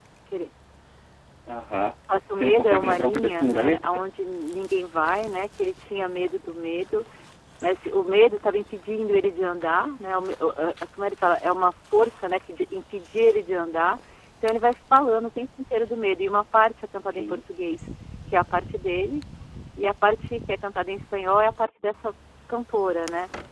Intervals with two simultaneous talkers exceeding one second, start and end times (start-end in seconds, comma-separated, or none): 2.3-4.0